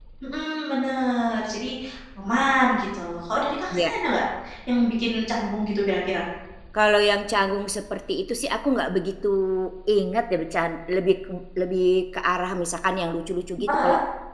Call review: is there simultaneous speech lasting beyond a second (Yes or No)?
No